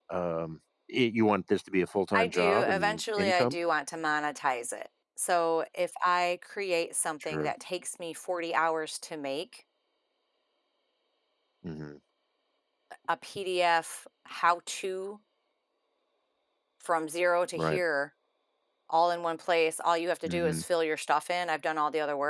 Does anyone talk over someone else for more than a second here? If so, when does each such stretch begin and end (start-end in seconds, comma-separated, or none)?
2.2-3.5